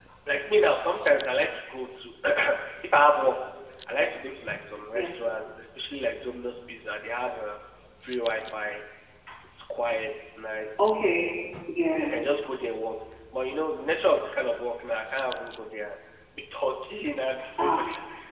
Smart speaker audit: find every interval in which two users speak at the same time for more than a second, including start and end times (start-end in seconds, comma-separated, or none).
none